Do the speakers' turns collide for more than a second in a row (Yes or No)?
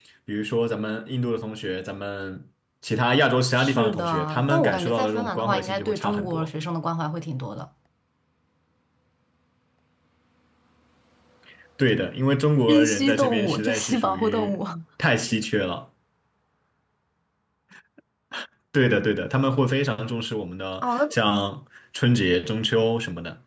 Yes